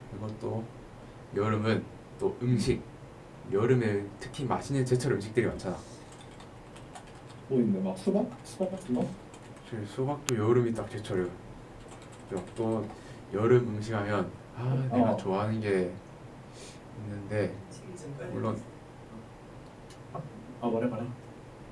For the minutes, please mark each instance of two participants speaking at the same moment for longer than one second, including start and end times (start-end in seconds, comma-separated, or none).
none